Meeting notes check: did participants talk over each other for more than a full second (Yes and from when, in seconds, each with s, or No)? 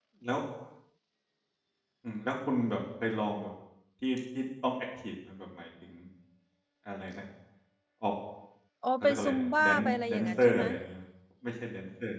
Yes, from 9.0 s